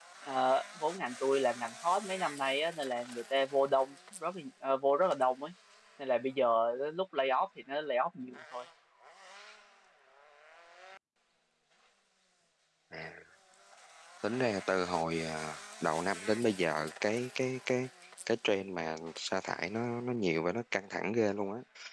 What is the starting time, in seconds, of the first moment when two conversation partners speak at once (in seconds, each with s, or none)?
none